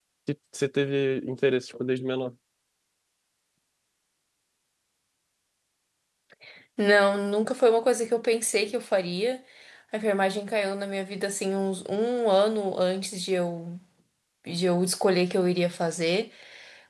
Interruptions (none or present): none